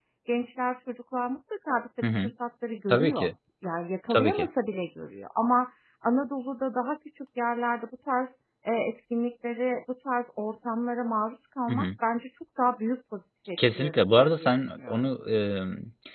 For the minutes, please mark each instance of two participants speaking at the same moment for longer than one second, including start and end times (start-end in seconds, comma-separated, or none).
13.8-15.1